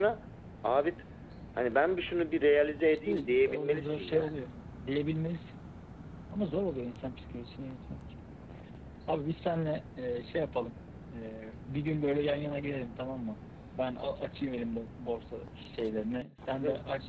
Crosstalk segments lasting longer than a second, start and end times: 2.8-4.3

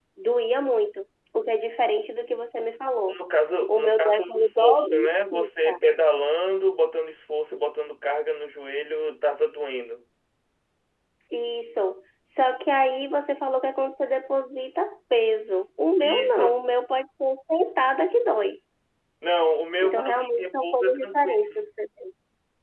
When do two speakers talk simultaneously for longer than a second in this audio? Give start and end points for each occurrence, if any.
3.7-5.8, 19.8-21.5

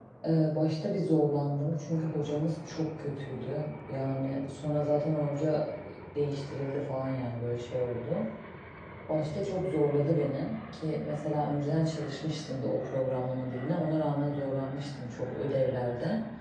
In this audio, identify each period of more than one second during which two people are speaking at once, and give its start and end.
none

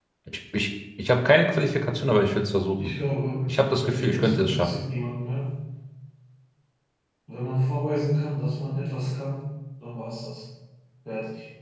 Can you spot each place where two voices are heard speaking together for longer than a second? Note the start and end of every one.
3.5-4.7

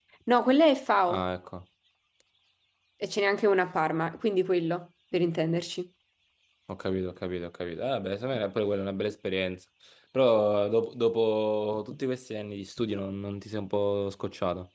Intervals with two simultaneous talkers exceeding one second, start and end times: none

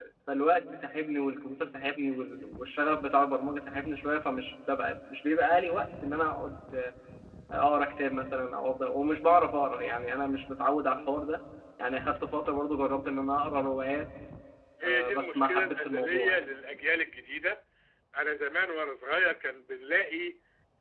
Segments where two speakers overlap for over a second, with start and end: 14.8-16.4

